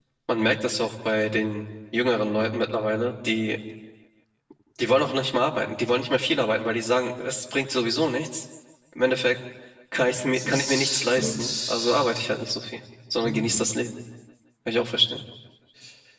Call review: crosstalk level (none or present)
present